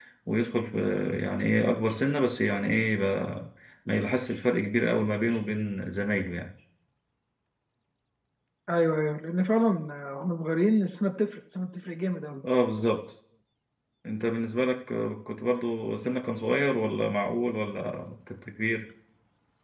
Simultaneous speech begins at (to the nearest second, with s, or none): none